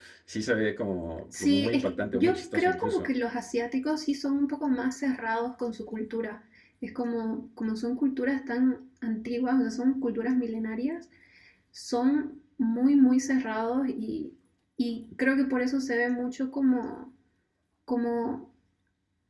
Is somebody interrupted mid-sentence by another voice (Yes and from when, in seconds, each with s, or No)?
Yes, from 1.3 s